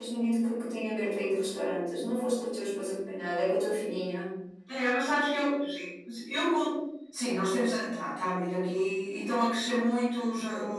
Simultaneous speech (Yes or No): No